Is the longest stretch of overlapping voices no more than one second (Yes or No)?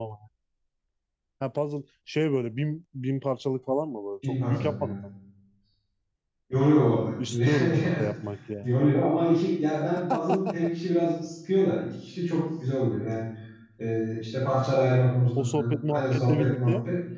No